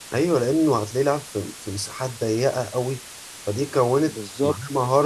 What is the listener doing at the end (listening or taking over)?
listening